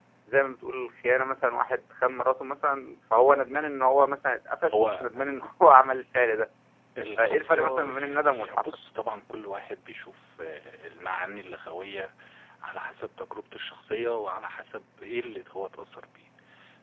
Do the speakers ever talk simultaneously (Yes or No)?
Yes